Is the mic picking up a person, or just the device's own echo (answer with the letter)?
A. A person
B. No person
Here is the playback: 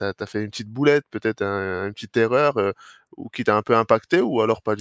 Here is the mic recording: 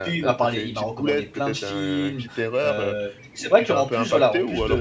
A